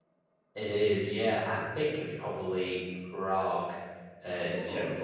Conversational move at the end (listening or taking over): listening